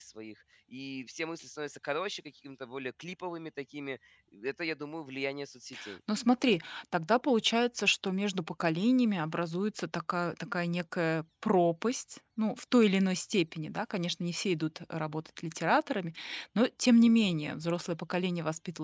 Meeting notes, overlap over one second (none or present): none